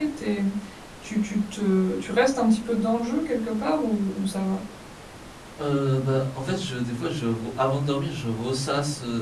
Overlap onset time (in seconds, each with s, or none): none